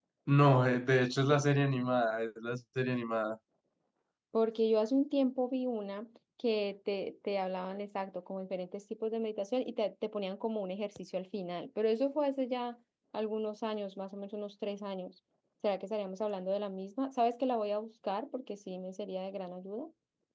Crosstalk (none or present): none